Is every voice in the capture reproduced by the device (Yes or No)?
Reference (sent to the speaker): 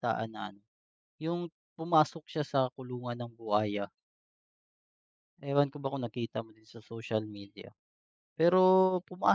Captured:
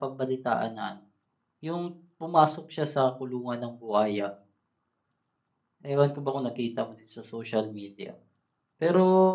Yes